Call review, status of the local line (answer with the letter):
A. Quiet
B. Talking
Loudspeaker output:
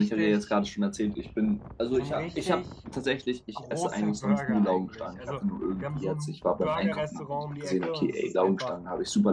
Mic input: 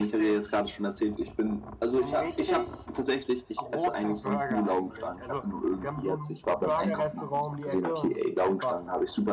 A